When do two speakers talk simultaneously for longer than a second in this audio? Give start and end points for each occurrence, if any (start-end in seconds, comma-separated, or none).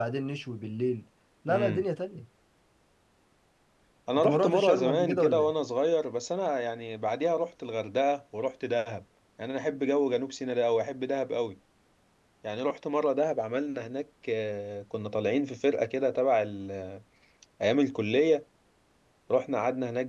4.2-5.5